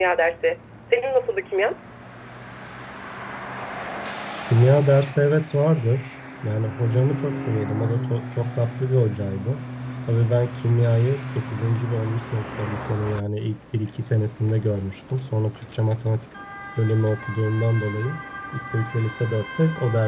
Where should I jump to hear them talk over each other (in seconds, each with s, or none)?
none